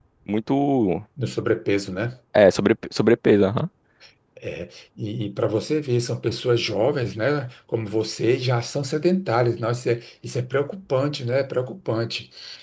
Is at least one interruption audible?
No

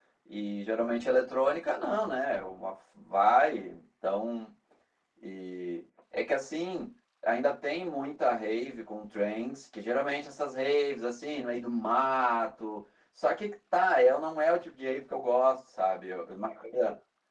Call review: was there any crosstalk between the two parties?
No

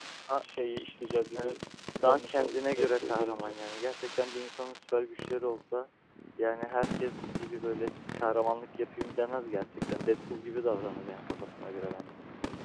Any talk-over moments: Yes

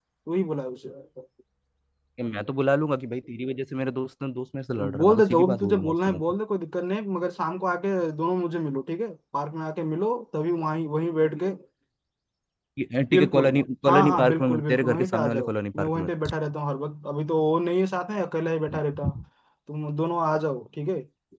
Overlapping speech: Yes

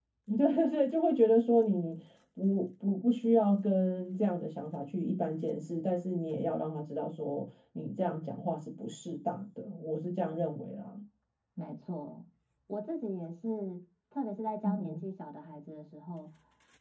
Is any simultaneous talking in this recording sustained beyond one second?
No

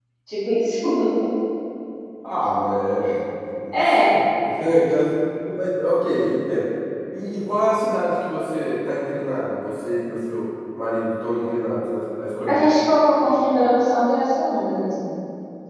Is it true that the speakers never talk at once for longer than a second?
Yes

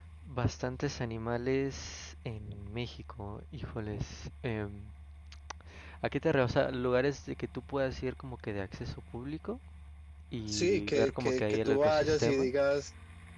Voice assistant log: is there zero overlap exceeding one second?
No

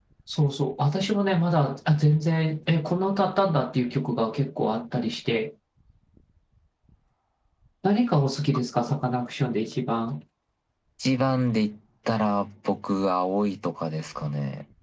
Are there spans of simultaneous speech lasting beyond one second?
No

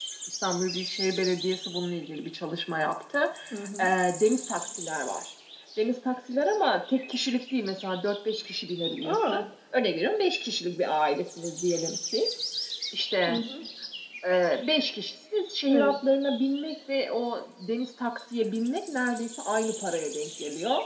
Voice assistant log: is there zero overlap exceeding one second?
Yes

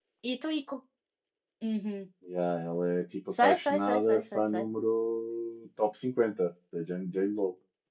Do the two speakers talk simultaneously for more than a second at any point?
Yes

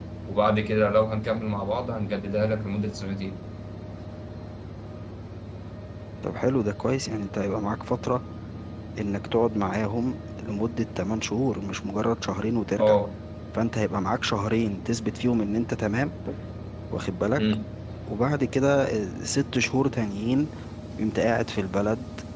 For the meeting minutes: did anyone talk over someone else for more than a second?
No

